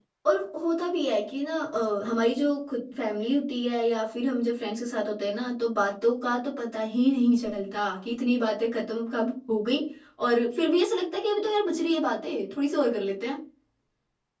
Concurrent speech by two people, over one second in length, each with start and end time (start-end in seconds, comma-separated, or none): none